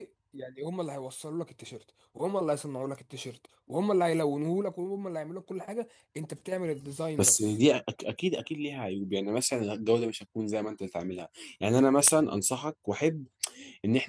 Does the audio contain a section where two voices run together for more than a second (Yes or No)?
No